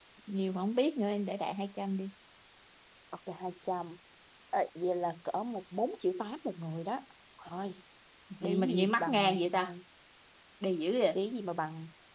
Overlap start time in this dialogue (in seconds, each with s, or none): 8.4 s